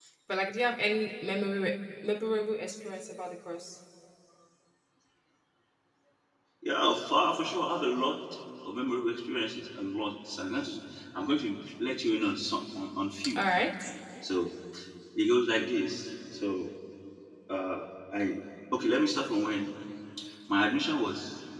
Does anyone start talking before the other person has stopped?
No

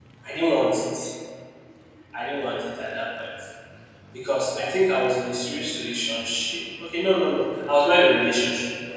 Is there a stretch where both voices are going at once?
No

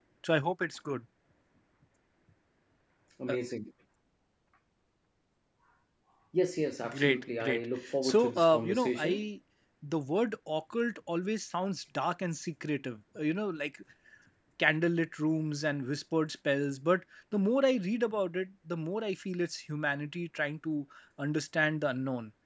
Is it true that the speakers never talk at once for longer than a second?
No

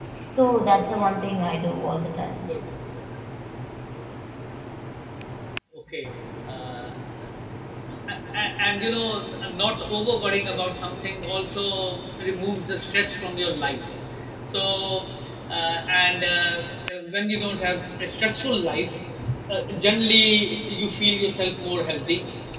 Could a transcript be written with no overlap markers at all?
Yes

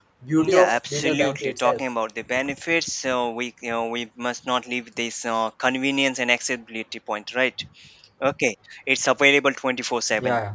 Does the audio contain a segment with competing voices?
Yes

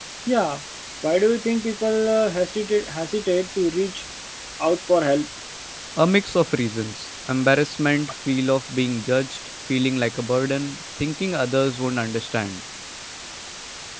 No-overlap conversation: Yes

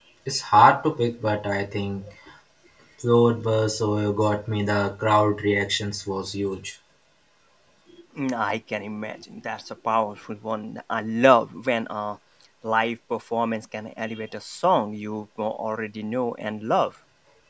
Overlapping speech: No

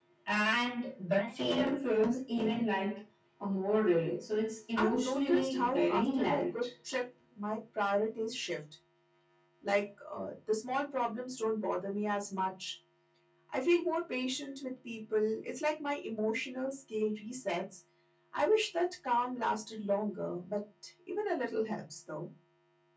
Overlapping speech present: Yes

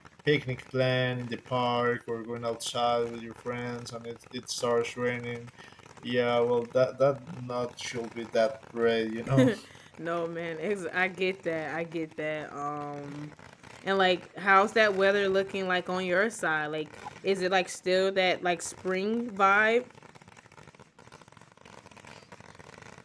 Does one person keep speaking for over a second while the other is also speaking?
No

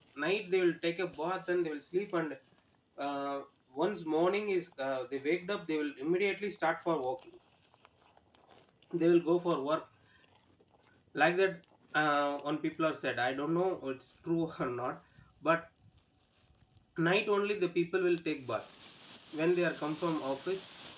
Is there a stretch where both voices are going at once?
No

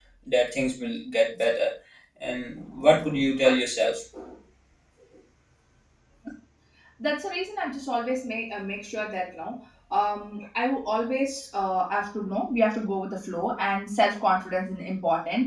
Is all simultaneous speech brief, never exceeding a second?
Yes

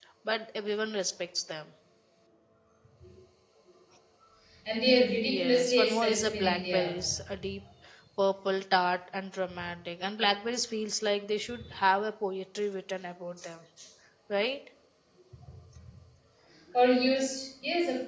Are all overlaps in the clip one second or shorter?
No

